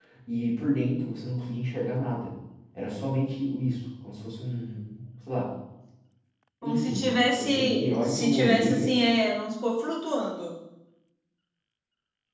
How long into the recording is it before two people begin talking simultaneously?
6.6 s

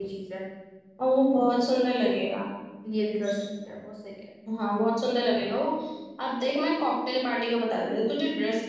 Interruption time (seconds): none

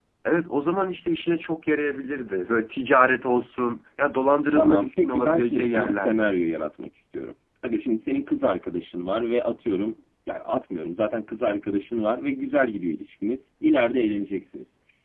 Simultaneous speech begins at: 4.5 s

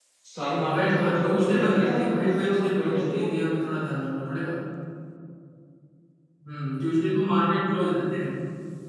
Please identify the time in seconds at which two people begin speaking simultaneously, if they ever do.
0.7 s

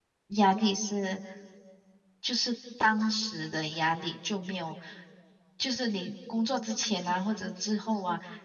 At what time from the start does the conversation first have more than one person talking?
none

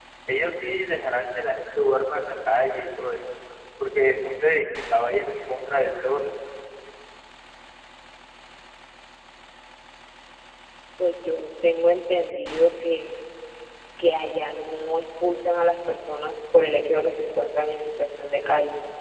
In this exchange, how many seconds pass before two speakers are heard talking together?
none

